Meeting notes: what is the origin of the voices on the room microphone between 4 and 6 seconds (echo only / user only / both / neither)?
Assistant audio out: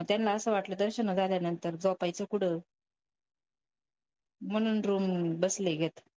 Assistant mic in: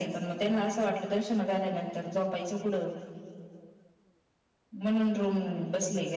echo only